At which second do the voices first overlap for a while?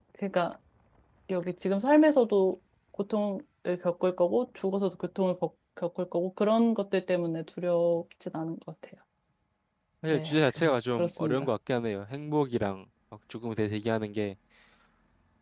10.1 s

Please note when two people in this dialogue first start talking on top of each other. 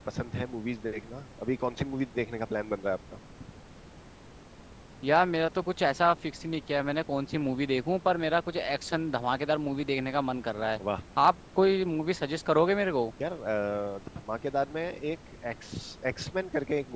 none

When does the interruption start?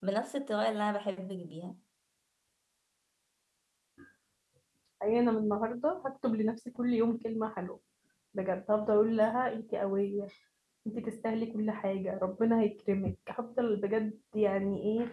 none

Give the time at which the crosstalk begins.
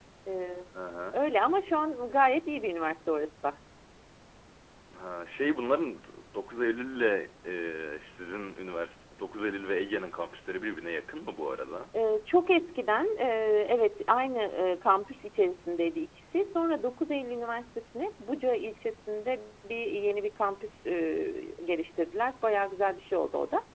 none

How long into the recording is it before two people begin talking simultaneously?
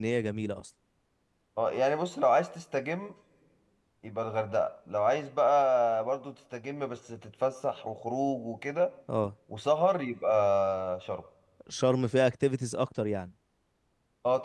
none

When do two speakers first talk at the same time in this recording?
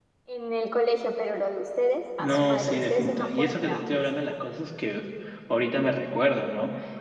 2.2 s

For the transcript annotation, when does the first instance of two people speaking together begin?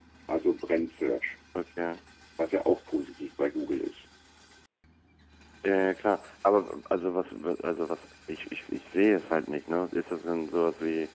none

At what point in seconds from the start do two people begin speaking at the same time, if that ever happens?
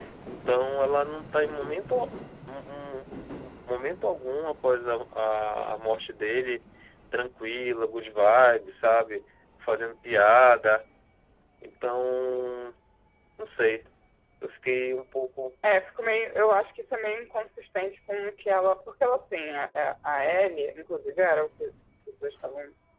none

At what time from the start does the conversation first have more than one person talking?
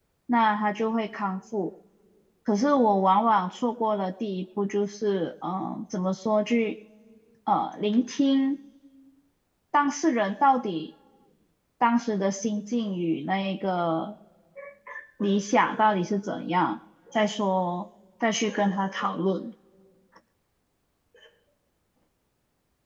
none

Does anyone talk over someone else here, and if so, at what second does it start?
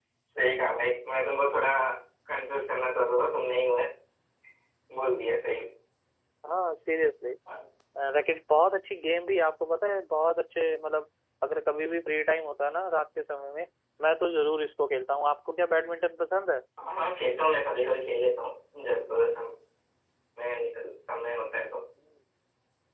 none

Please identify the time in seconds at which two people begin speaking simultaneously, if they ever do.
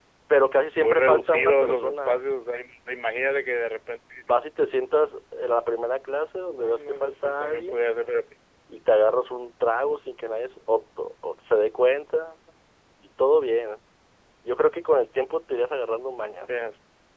0.8 s

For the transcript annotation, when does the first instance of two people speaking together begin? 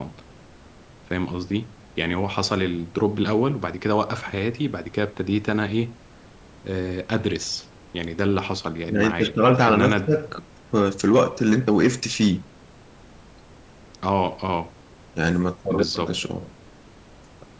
8.9 s

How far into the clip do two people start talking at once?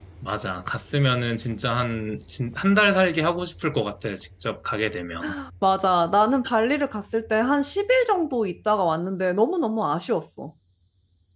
none

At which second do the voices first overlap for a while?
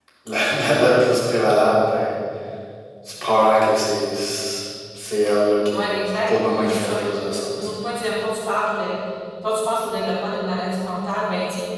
5.7 s

